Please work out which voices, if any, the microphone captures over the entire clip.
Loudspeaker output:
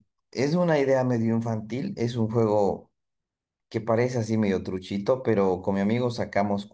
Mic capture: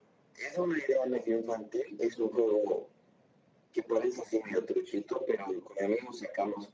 echo only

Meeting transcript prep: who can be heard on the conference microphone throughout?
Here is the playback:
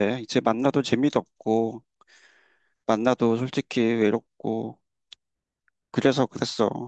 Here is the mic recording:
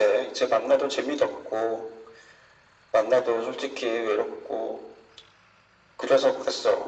echo only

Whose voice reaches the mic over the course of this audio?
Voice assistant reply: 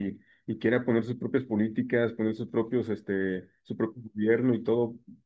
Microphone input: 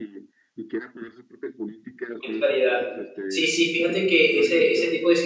both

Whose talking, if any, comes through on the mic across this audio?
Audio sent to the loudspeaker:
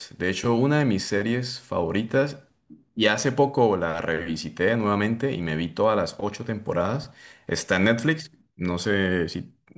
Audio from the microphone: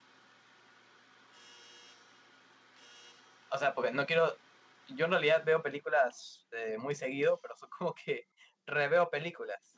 user only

